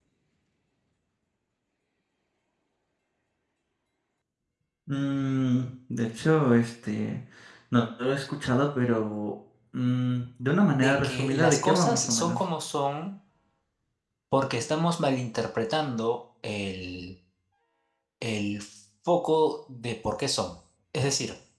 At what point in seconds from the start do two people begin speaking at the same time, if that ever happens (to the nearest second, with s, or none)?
11 s